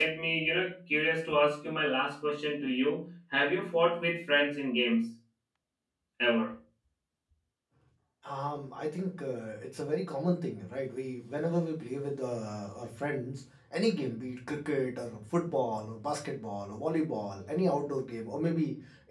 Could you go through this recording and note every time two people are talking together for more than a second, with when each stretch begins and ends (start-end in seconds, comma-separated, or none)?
none